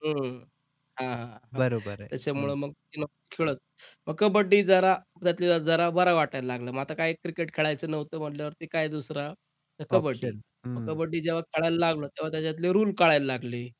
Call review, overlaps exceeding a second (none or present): none